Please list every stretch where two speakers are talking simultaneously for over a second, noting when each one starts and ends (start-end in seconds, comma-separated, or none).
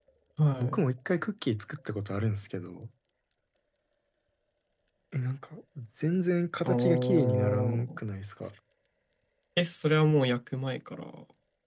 6.7-8.0